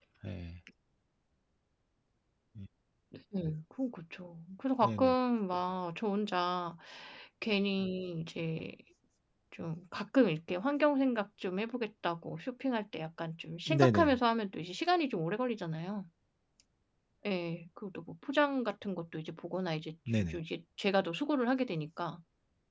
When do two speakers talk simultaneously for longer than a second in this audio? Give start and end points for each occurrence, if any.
none

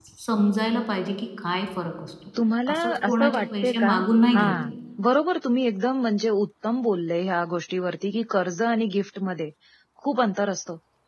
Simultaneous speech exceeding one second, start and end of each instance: 2.7-3.9

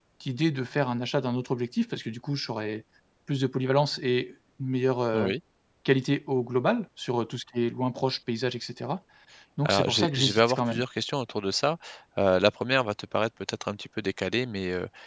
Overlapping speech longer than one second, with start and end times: 9.6-10.8

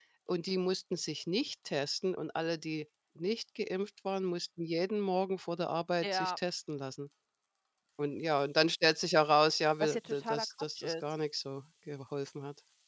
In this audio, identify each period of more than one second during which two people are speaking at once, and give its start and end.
9.8-11.0

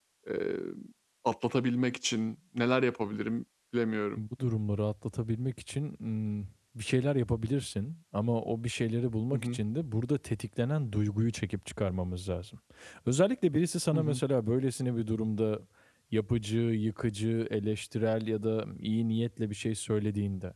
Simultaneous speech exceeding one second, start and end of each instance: none

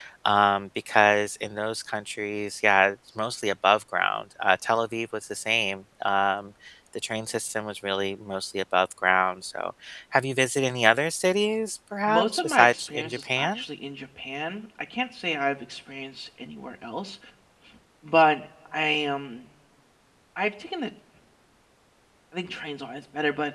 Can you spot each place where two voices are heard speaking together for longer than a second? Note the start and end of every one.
12.1-13.6

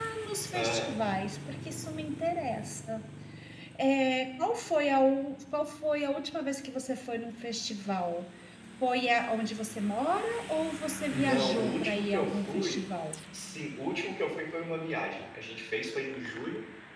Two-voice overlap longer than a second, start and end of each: 11.1-12.8

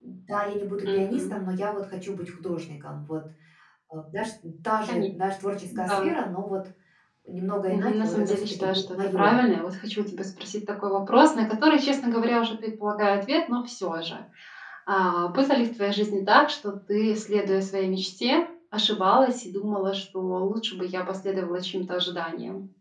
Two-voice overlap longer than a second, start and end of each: 7.7-9.4

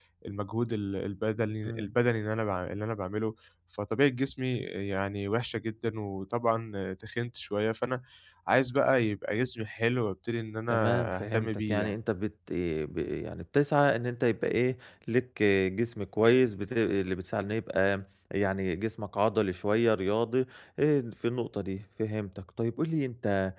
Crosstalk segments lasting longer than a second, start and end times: 10.7-11.9

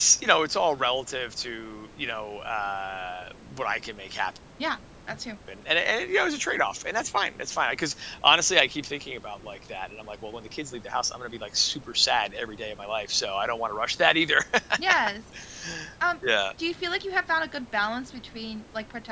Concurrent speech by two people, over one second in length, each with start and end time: none

